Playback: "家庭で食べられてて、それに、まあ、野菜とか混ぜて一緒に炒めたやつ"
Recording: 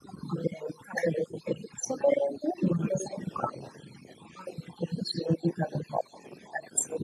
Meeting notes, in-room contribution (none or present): none